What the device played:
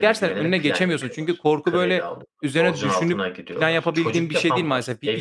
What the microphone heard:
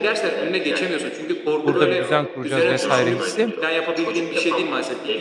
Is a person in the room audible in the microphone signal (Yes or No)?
Yes